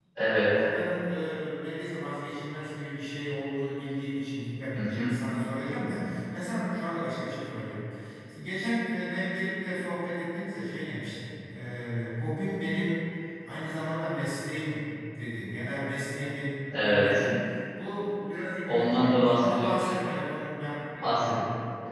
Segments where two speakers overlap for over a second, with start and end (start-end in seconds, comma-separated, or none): 18.6-19.9